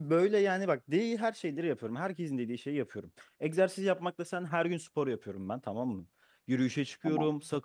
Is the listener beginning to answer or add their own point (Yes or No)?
No